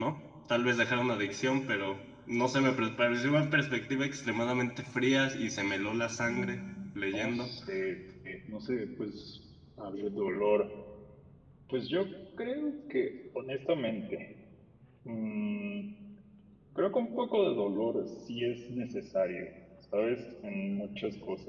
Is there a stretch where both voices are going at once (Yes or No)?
Yes